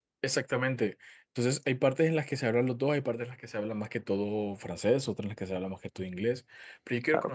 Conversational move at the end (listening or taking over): listening